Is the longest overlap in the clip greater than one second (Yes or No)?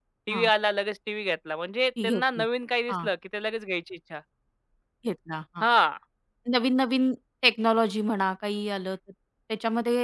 No